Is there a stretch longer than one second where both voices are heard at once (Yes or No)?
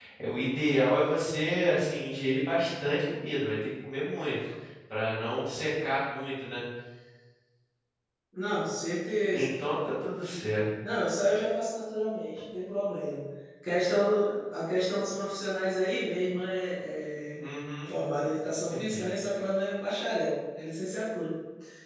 No